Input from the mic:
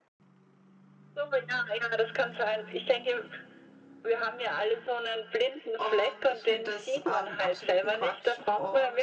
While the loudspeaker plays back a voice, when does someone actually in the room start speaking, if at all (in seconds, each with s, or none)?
5.8 s